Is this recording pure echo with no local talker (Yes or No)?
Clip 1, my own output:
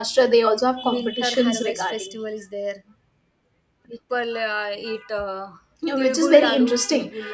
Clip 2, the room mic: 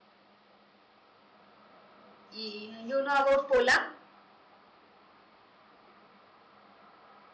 No